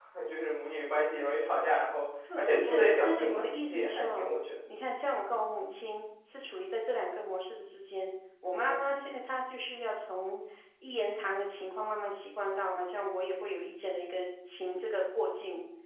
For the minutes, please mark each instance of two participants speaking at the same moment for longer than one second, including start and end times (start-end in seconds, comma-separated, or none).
2.4-4.3